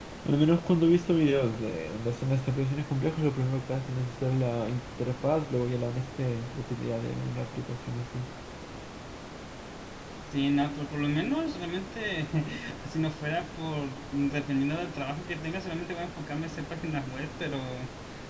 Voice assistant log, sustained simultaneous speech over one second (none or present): none